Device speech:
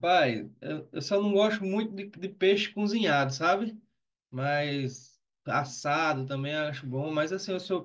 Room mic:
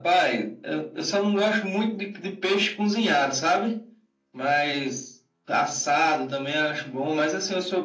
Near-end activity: none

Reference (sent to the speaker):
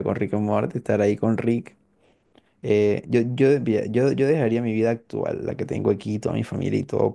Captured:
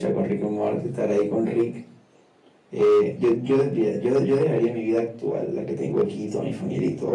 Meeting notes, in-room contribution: none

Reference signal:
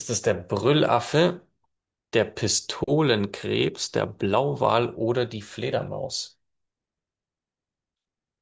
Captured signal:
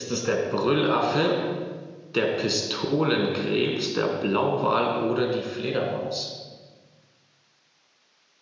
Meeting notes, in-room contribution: none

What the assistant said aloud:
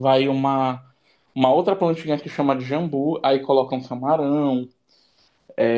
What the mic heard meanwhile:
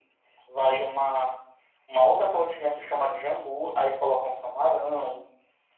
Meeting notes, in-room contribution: none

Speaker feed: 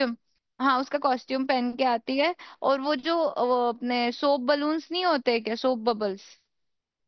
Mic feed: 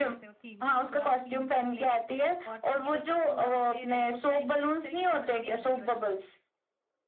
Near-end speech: present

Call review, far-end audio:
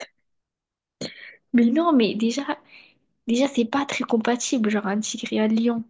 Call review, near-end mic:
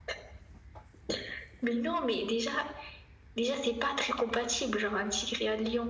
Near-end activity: none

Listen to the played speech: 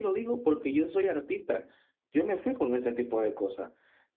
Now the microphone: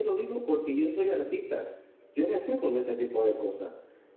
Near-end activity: none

